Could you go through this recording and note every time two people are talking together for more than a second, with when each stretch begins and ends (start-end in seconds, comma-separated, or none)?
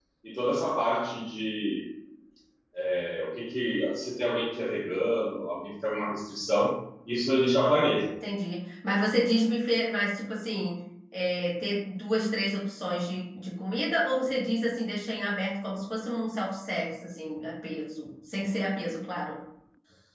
none